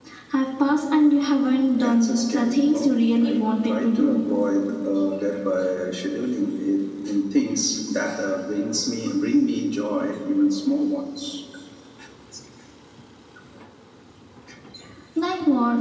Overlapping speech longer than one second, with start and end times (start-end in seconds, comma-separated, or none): 1.7-4.2